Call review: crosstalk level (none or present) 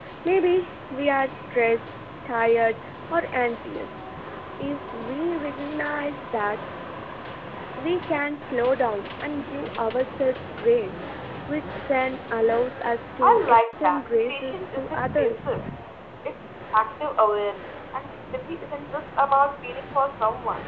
present